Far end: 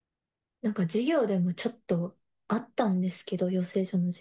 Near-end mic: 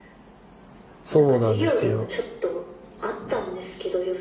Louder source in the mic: user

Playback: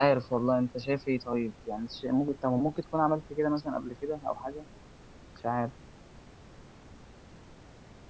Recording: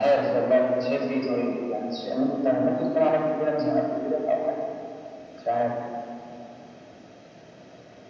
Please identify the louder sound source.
echo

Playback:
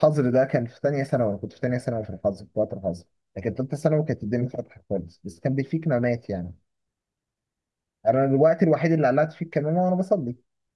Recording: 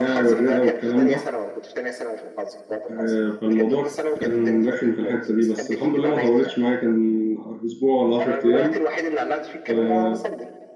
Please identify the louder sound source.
user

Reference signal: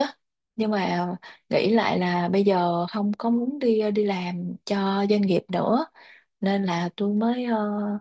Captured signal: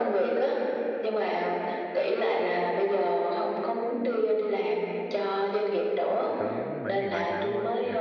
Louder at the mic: echo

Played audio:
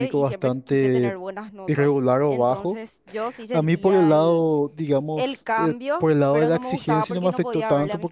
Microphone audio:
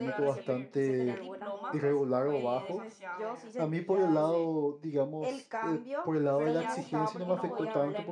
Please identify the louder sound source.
echo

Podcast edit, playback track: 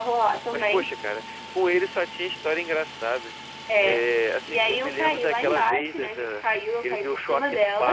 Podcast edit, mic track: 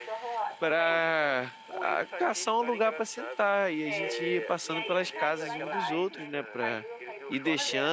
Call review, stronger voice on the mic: user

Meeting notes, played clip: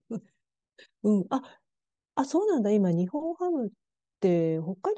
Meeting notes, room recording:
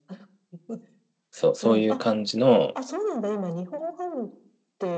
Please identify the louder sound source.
user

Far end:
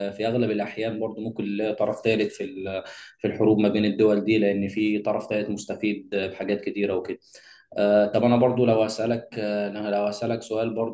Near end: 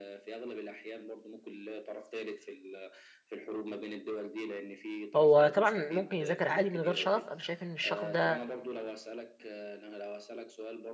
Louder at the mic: user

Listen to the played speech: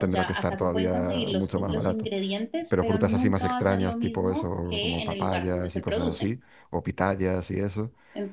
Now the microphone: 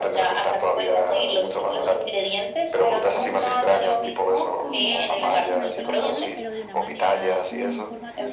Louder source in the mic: echo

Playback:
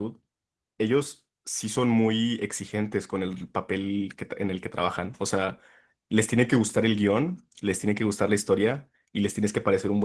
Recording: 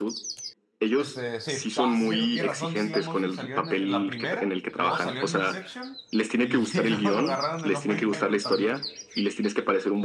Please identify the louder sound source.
echo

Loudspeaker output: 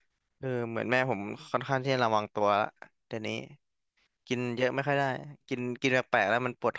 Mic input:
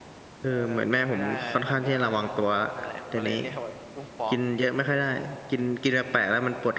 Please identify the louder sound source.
echo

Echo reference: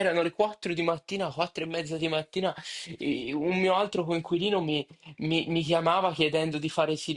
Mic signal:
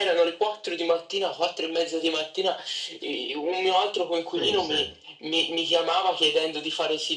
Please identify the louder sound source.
echo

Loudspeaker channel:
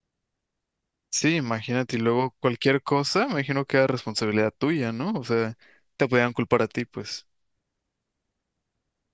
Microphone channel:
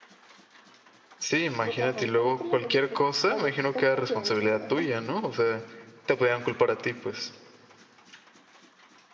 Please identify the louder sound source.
echo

